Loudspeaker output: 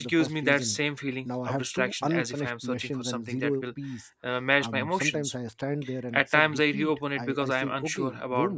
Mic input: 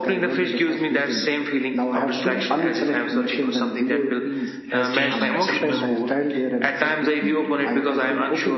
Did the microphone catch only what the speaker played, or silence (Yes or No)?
No